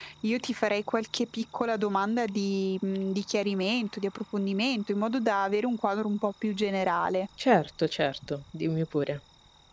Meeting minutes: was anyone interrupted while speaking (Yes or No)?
No